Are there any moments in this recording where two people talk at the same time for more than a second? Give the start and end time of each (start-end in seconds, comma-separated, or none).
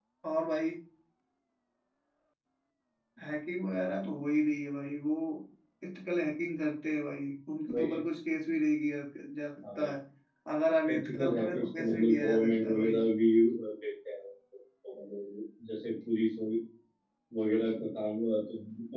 10.9-13.0